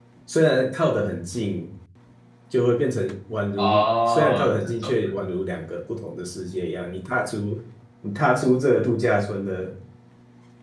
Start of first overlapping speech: 3.6 s

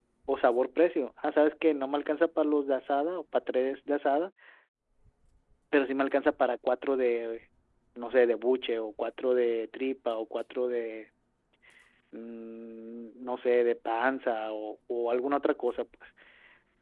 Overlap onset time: none

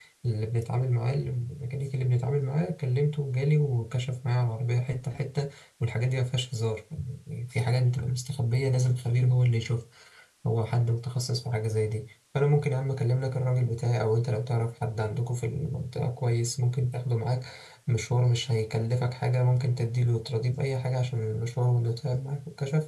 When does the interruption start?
none

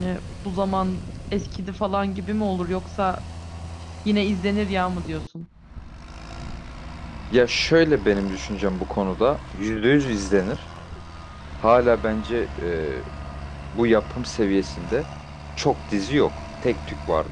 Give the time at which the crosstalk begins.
none

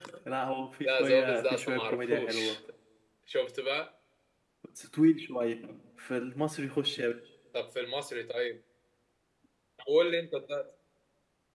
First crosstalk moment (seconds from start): 0.8 s

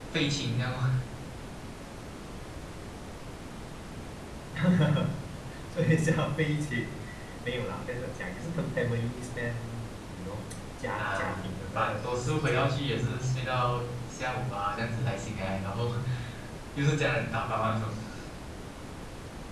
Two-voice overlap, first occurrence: 11.0 s

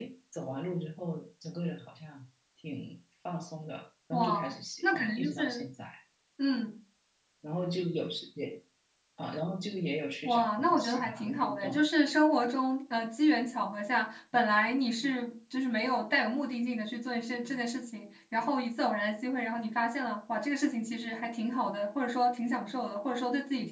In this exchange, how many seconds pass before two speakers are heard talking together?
4.1 s

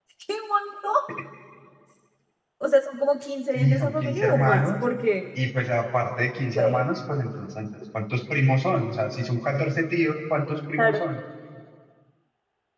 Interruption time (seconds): 3.5 s

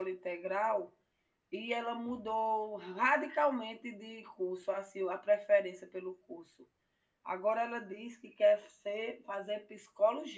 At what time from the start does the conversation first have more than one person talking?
none

